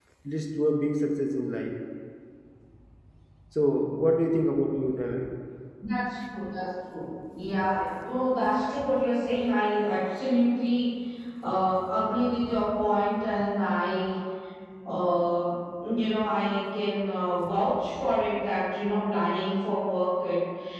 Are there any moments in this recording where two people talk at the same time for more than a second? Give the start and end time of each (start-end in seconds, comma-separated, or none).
none